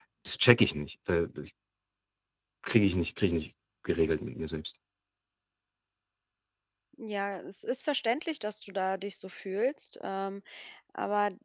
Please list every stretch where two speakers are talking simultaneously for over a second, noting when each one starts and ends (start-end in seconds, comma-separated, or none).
none